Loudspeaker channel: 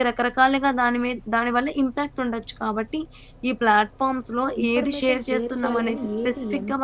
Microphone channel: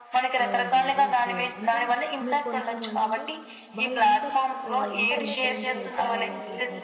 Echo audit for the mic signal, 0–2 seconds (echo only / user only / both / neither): both